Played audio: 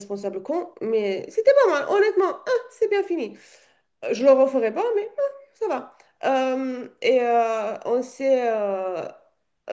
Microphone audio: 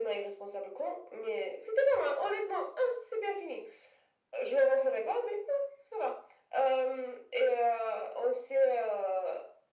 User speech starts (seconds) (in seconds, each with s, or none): none